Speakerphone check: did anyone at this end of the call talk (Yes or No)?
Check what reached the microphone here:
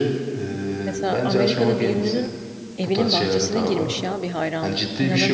Yes